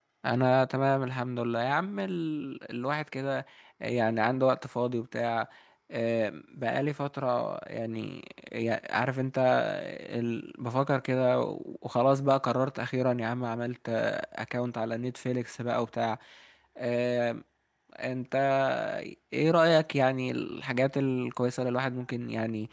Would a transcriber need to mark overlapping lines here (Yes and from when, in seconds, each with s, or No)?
No